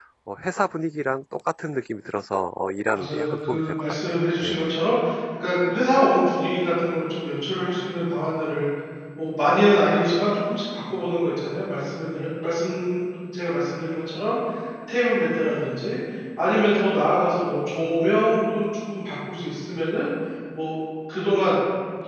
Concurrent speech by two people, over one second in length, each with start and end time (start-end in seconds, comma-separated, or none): 2.9-4.6